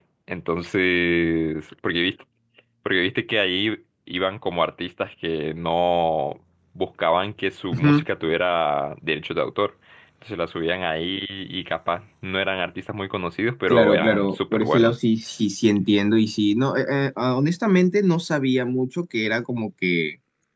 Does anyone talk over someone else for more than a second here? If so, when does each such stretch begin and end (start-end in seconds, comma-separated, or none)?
13.7-14.9